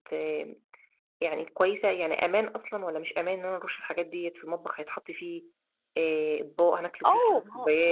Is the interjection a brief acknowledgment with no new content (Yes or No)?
No